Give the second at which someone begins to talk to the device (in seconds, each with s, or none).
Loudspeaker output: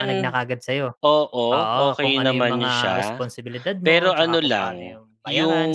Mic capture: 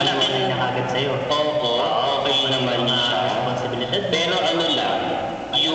none